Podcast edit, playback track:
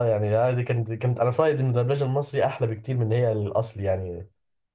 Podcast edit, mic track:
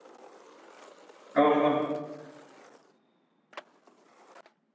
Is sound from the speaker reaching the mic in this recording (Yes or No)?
No